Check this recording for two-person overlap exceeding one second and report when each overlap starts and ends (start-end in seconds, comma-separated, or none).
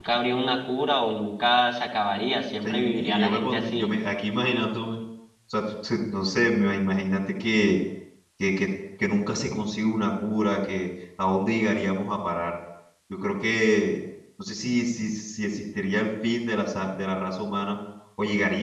2.6-3.9